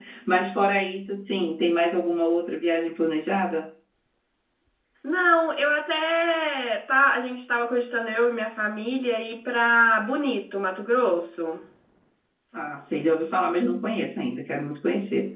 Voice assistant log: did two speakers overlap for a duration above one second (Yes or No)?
No